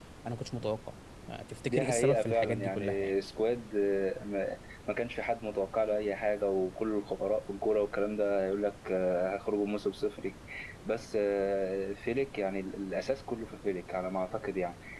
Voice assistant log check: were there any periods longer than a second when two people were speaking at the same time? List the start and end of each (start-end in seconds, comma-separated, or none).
1.7-3.1